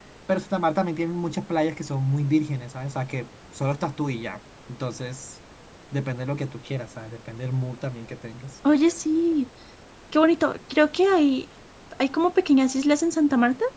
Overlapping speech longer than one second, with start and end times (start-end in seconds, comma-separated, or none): none